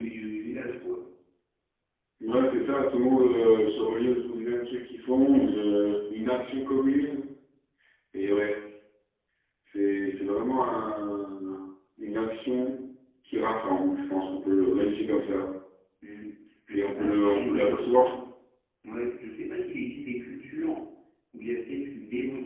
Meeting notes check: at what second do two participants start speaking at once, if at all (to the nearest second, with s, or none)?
17 s